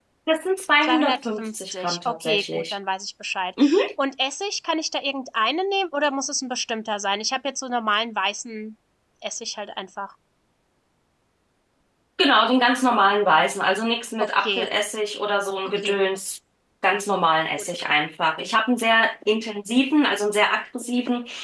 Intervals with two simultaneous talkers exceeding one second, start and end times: 0.8-2.8

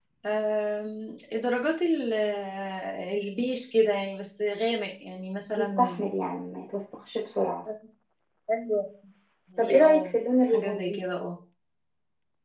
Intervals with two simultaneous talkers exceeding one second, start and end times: none

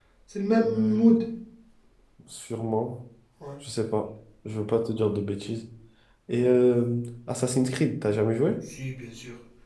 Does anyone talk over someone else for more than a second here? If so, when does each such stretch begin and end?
none

